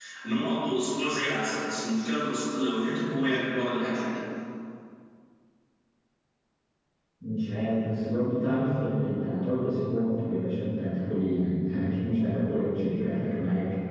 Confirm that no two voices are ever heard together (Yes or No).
Yes